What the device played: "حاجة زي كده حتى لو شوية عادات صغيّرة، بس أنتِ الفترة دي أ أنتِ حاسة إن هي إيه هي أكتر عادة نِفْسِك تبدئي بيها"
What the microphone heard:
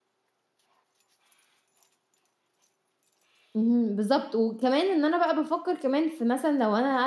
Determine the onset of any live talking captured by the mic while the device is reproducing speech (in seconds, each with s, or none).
3.6 s